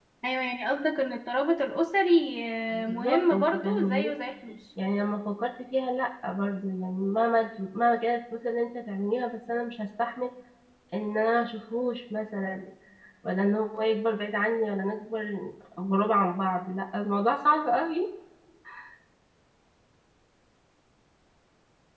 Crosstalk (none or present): present